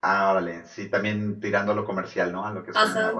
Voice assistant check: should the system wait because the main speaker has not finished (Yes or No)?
No